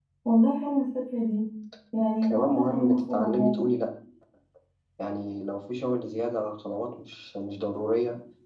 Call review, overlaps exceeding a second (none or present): present